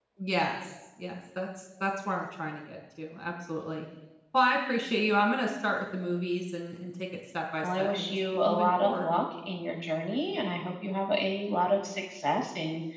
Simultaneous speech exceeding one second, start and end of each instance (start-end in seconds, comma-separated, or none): 7.6-9.1